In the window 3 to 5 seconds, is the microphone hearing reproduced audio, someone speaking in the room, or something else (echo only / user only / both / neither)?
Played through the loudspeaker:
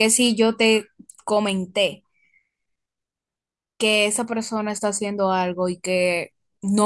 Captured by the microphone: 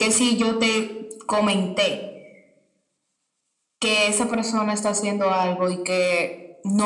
echo only